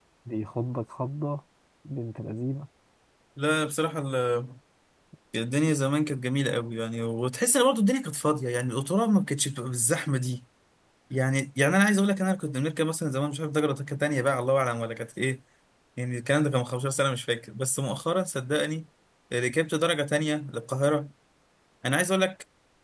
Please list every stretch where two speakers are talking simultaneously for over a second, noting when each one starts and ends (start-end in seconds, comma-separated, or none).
none